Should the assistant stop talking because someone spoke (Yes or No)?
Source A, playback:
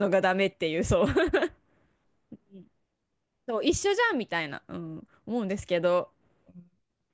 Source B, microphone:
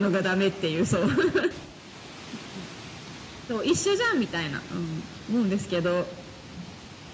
No